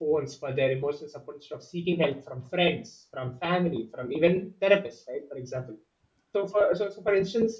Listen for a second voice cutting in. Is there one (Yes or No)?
No